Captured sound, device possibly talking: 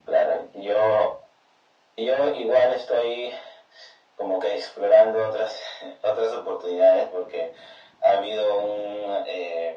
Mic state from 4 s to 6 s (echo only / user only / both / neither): echo only